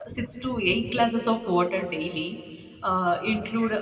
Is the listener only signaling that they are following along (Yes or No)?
Yes